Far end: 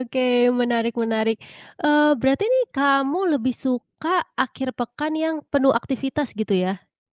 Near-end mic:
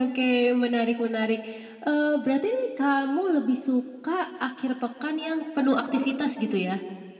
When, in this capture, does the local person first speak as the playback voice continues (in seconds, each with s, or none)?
none